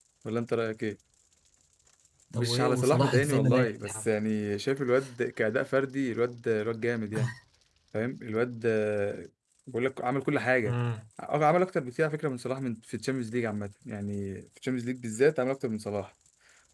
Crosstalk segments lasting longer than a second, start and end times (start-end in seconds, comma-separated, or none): 2.3-4.1